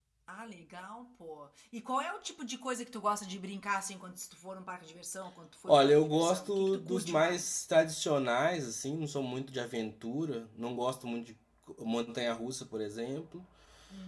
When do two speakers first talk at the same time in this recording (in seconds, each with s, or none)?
5.7 s